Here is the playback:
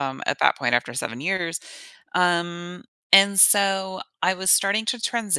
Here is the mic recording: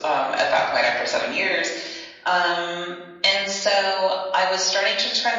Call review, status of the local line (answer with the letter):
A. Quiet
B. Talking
A